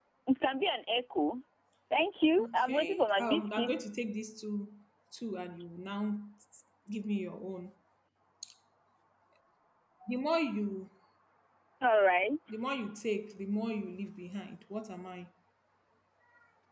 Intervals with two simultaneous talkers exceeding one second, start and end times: 2.4-3.8

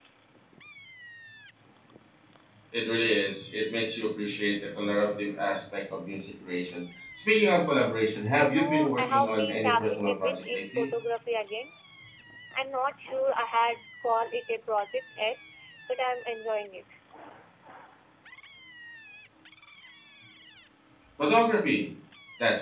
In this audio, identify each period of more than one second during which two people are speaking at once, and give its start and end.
8.4-10.9

